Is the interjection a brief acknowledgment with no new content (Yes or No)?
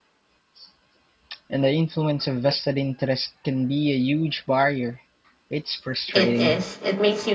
No